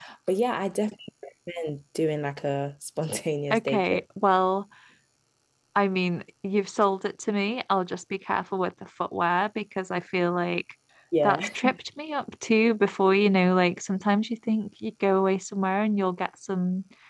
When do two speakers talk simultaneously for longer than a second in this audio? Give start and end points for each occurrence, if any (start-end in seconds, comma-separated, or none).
none